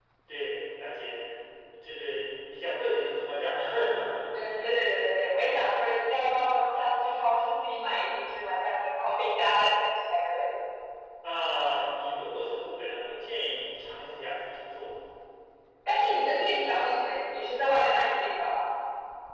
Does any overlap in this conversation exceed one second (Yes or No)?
No